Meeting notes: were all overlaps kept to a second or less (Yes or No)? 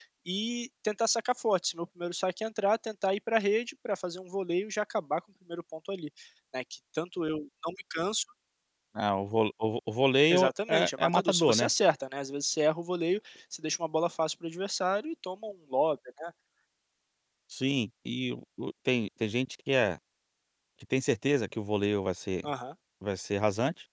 No